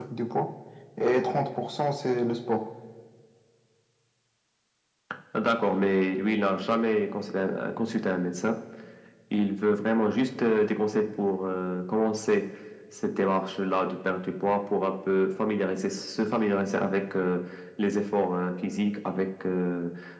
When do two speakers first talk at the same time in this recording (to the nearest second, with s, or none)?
none